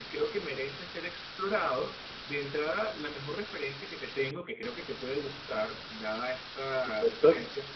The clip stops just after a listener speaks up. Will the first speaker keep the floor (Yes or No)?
Yes